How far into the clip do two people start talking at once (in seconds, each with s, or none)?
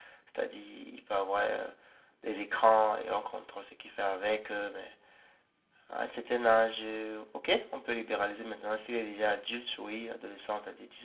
none